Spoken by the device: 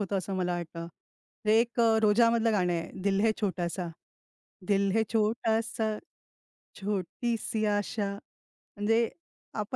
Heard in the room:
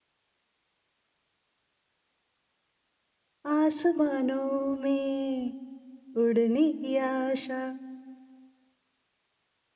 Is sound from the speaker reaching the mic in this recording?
No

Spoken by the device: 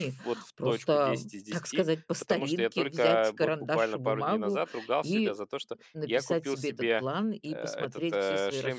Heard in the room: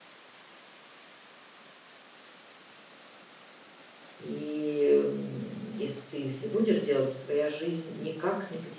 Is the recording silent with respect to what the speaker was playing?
Yes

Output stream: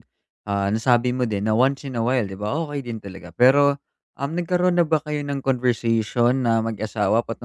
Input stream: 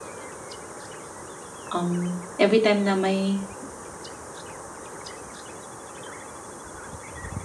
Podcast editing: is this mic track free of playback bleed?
Yes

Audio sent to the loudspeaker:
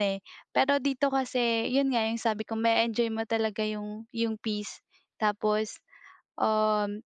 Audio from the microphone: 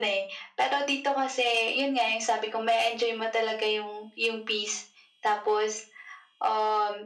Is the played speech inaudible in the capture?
No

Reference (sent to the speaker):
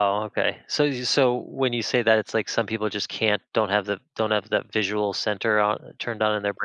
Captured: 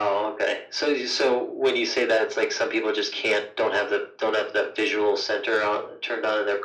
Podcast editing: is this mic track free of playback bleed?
No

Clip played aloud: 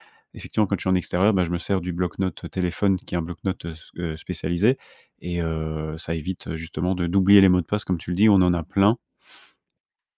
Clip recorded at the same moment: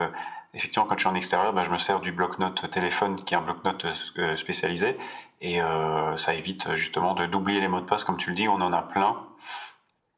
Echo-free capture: No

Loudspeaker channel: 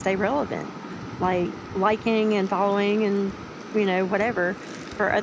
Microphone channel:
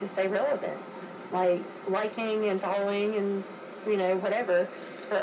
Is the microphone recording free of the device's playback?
No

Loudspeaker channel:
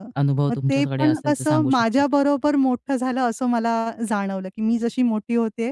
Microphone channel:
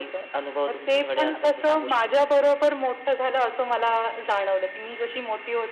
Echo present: Yes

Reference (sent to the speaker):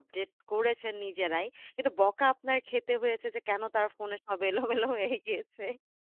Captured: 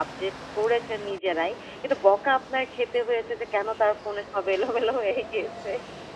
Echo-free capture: No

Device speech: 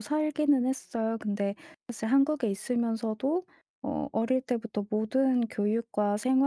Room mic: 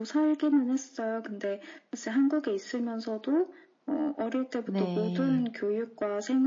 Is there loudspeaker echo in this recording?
Yes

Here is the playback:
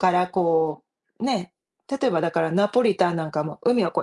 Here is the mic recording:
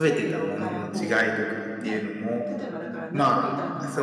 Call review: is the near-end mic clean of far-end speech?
No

